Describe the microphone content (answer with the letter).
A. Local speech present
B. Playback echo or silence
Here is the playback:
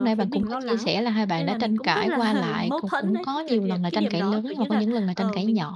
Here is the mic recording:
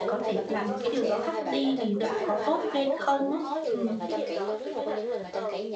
A